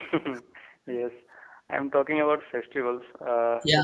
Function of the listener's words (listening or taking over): listening